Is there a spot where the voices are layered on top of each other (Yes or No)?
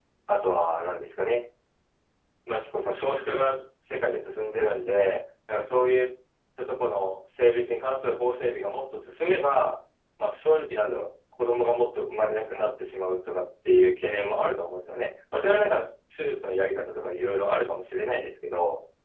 No